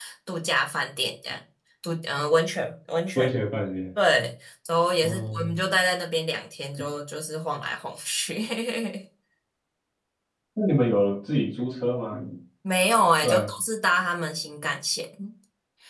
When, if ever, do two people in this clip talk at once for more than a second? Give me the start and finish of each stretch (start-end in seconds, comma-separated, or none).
none